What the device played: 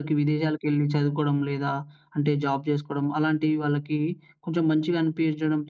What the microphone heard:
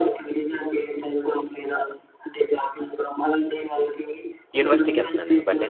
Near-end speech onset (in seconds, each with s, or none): 4.6 s